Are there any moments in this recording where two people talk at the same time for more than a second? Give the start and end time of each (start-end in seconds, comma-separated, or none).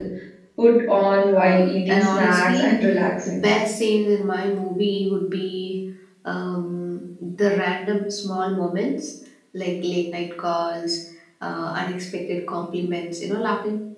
1.4-2.8